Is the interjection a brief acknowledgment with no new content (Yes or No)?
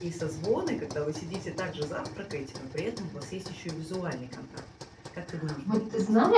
No